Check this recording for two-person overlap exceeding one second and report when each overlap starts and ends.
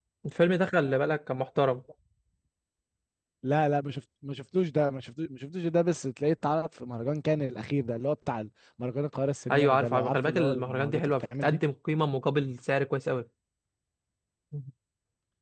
9.5-11.6

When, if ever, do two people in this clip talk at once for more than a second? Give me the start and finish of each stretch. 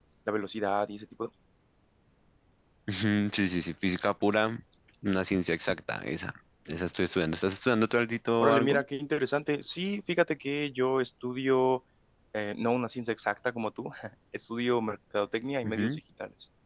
none

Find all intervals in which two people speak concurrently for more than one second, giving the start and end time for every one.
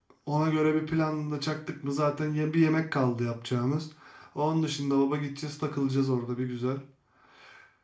none

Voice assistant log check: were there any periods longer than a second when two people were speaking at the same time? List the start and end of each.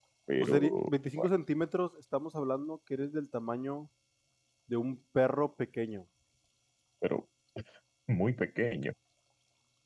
none

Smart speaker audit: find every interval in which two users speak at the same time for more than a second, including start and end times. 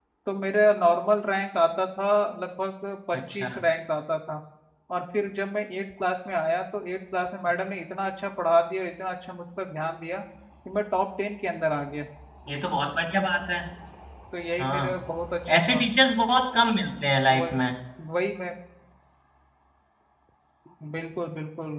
none

